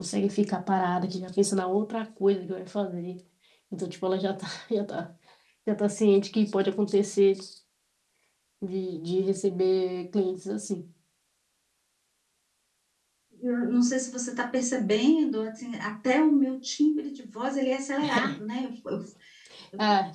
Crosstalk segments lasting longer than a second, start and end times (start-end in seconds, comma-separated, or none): none